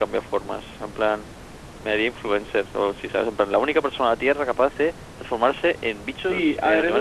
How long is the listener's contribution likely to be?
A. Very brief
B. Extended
B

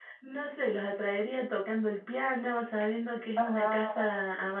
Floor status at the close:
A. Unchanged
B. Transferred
A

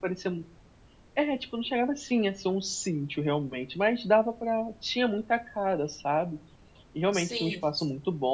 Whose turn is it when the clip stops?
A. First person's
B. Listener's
A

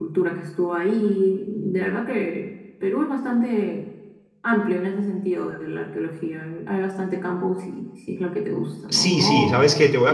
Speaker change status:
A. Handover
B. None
A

